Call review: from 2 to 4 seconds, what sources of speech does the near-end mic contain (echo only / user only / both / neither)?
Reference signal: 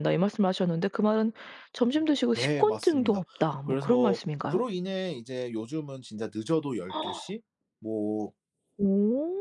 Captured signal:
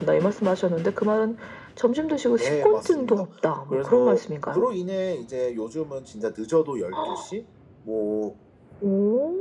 echo only